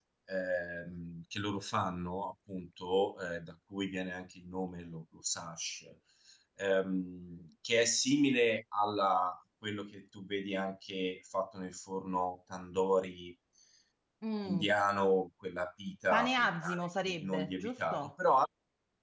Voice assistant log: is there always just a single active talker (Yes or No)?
No